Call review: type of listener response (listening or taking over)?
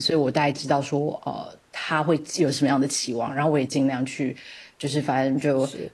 listening